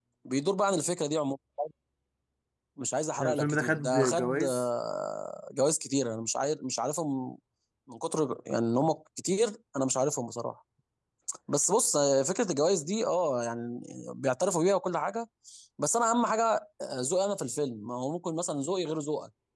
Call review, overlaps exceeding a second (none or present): present